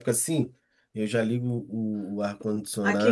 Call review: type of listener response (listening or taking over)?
taking over